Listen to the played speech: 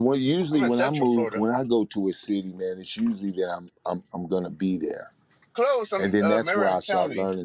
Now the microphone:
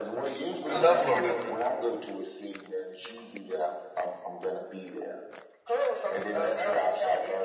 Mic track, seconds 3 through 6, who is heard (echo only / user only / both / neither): echo only